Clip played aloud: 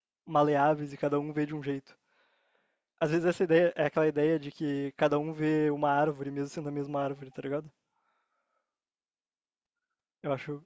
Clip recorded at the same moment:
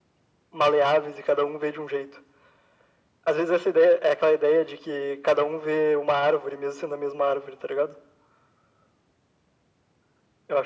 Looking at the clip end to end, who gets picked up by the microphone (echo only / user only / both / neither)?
echo only